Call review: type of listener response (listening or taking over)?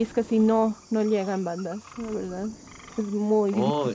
taking over